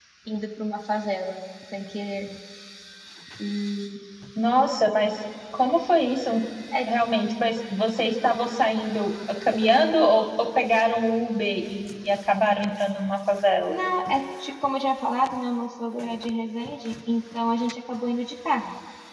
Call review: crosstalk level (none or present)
none